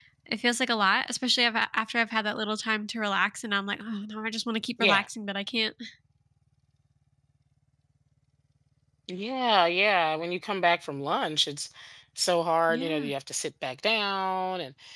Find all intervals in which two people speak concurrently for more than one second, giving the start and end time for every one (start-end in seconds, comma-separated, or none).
none